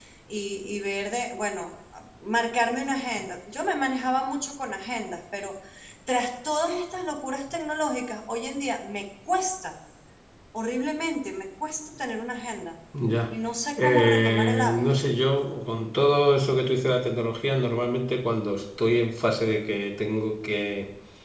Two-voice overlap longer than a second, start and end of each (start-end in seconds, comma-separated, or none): 13.8-15.0